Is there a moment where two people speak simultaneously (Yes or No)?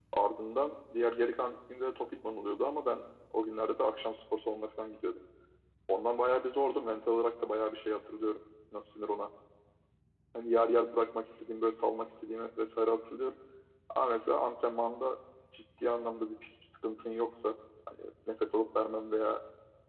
No